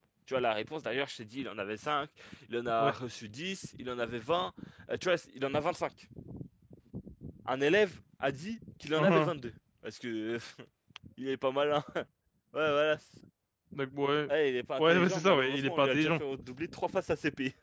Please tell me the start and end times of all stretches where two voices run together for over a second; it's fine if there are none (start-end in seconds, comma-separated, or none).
14.8-16.2